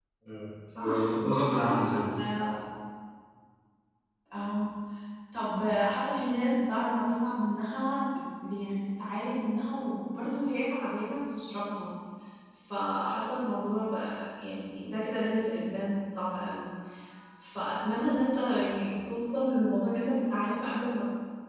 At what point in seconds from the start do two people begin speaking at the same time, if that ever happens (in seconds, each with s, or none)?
0.8 s